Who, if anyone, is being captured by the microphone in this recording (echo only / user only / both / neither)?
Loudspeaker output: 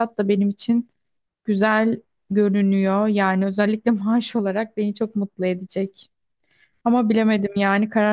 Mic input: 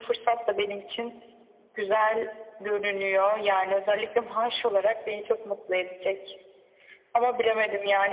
echo only